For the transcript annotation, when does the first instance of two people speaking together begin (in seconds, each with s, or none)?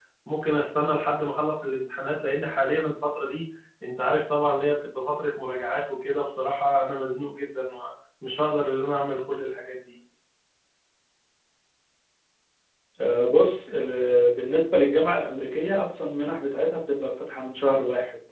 none